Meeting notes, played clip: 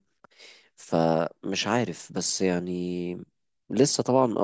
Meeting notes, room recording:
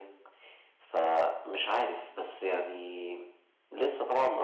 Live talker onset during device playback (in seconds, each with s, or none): none